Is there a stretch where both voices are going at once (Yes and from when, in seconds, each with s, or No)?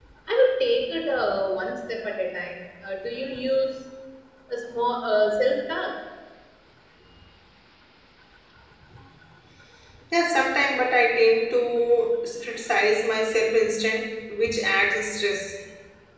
No